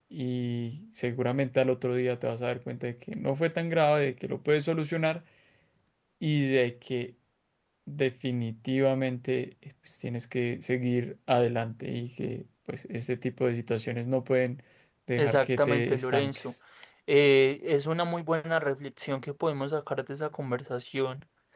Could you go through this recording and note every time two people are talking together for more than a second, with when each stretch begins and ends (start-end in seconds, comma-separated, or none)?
15.2-16.5